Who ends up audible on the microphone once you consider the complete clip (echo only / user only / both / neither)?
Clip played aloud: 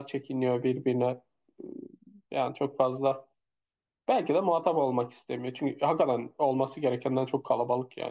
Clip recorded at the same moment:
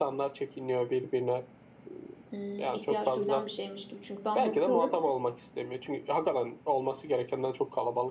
both